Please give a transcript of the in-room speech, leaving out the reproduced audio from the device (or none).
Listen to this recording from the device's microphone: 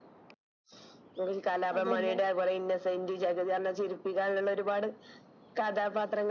അതന്നെ